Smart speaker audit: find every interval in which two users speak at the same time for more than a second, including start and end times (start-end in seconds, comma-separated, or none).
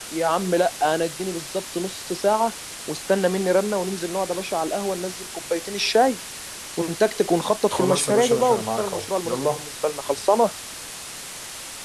7.7-9.6